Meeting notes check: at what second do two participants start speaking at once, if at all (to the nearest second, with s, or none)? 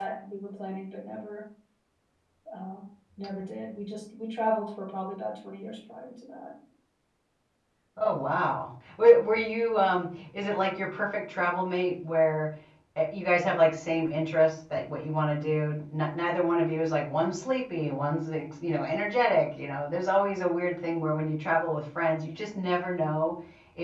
none